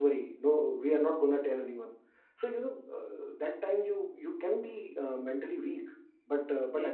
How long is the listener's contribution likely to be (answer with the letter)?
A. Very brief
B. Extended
A